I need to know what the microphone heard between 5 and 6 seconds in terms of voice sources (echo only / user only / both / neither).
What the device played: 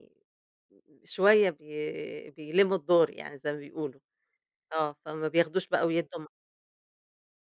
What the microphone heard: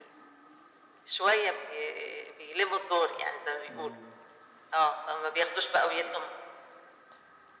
echo only